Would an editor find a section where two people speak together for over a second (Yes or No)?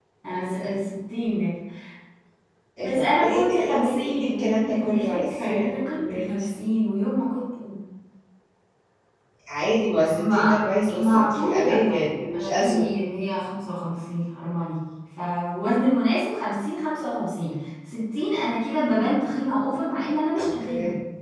Yes